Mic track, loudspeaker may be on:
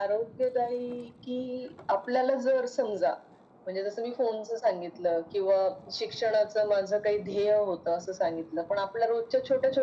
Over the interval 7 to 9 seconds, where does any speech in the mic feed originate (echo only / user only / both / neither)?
echo only